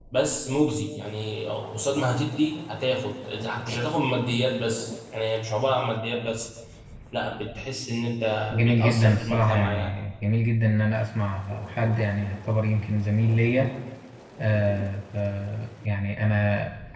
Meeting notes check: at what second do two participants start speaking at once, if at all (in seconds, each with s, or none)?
8.5 s